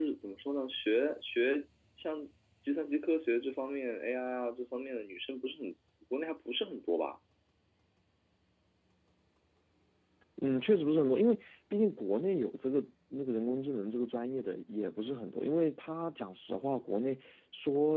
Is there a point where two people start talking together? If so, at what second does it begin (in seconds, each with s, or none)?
none